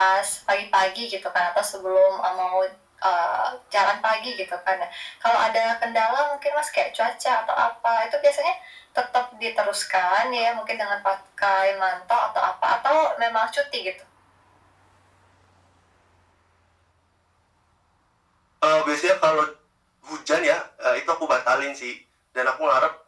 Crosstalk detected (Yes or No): No